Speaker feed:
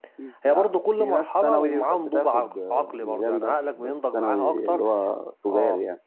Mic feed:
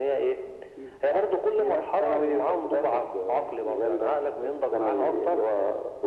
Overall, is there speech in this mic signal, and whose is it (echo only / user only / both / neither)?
echo only